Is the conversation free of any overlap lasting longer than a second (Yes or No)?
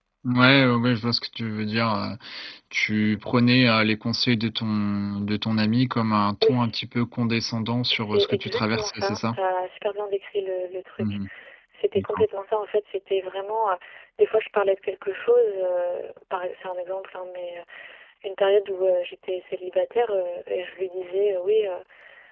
No